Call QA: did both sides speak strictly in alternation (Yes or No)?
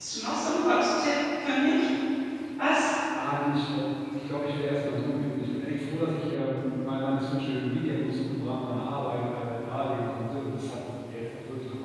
Yes